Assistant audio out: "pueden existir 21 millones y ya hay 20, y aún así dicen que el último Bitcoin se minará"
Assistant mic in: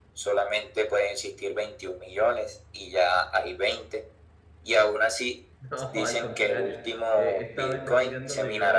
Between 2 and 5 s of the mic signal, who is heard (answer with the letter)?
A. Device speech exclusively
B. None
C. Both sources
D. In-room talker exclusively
A